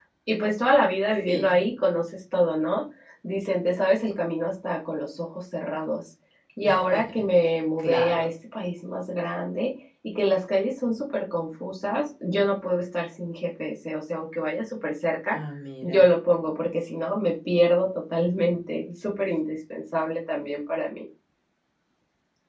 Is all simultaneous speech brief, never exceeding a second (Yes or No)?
Yes